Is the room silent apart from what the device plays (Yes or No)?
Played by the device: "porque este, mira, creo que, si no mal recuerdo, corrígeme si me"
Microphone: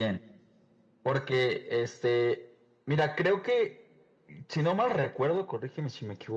Yes